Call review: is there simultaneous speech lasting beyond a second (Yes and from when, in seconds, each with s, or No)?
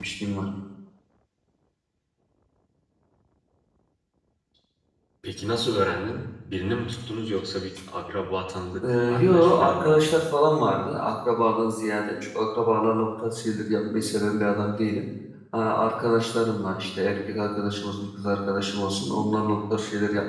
Yes, from 8.7 s